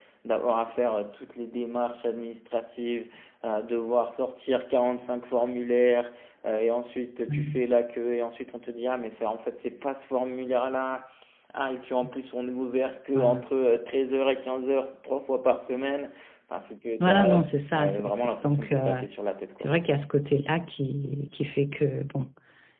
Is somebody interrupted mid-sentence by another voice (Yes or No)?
Yes